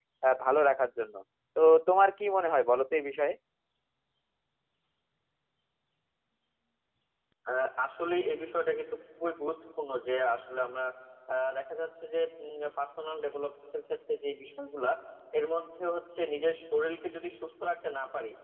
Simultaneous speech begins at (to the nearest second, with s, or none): none